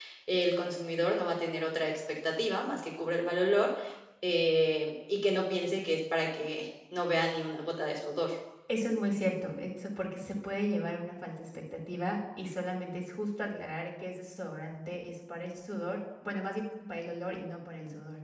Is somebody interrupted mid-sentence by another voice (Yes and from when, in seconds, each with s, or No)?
No